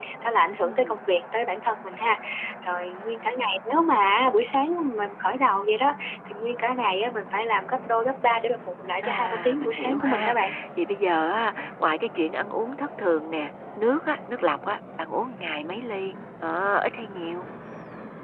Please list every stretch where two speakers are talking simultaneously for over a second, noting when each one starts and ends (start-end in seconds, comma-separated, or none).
9.0-10.4